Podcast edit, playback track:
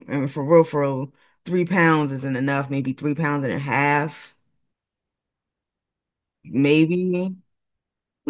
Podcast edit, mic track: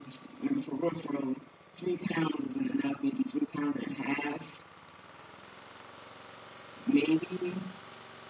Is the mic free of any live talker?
Yes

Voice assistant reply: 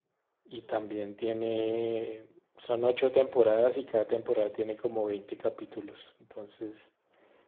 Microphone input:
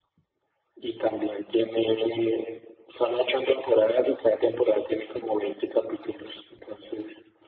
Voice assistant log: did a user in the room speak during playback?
No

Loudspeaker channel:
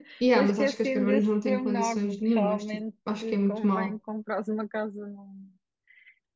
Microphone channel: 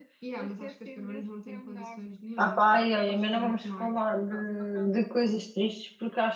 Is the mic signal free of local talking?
No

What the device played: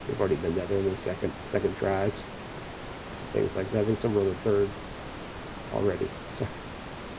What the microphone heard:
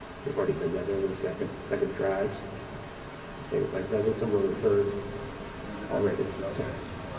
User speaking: Yes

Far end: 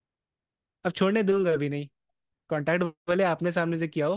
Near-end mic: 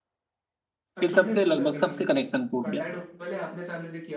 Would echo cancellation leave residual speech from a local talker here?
Yes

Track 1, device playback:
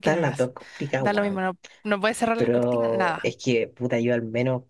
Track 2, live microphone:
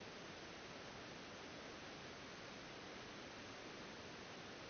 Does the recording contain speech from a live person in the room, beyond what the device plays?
No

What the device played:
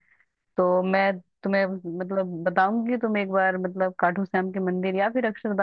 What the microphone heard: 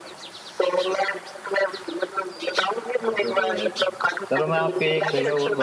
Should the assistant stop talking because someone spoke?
Yes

